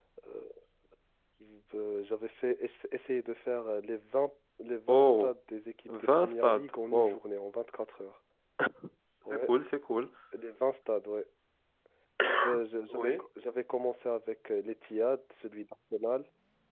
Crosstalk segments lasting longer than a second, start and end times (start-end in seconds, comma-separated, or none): 5.9-7.2